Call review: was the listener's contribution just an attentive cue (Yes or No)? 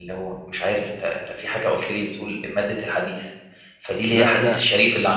Yes